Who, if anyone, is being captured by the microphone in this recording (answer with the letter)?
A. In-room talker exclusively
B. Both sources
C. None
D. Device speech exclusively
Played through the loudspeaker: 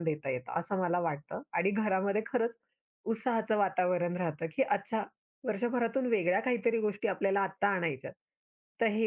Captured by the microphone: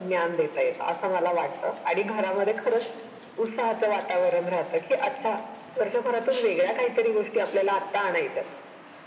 D